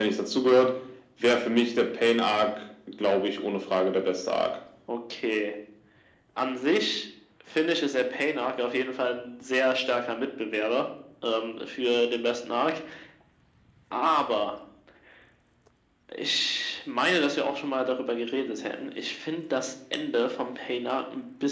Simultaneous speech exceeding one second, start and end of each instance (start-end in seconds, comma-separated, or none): none